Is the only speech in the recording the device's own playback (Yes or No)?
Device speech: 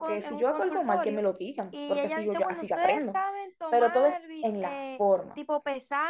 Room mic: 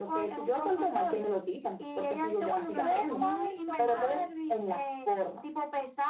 No